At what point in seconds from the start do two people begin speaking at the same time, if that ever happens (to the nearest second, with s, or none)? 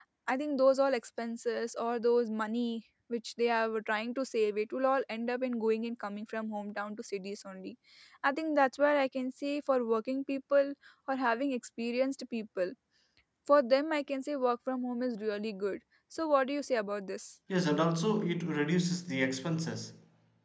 none